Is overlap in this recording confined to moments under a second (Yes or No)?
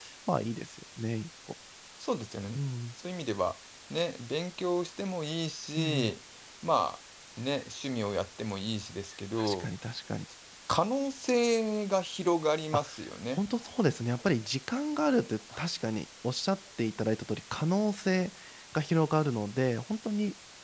Yes